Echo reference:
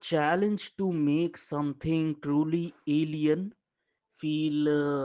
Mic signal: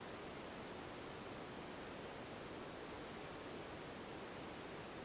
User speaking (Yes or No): No